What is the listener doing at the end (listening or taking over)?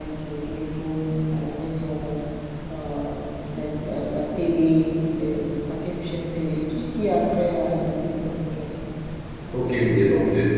taking over